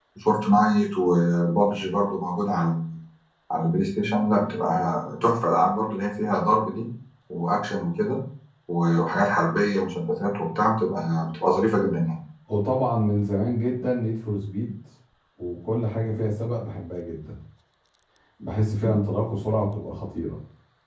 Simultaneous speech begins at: none

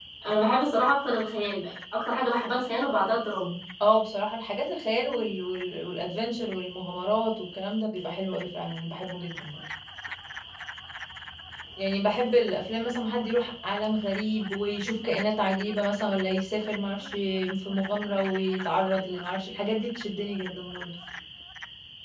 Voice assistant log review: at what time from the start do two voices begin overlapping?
none

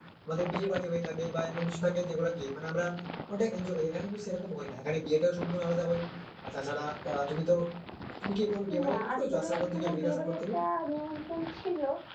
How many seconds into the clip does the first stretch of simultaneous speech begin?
8.9 s

